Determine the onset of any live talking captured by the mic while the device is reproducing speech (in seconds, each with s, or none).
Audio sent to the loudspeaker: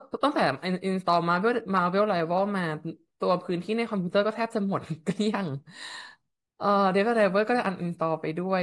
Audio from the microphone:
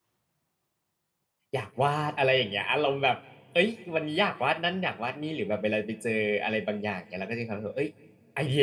1.5 s